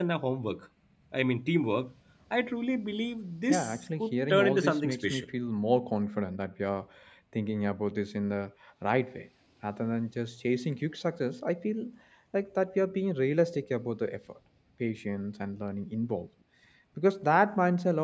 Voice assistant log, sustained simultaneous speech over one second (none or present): present